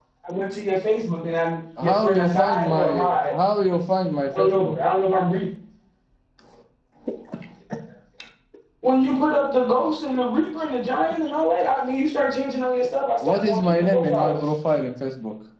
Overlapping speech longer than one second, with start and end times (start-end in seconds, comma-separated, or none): 1.8-3.3, 13.2-14.5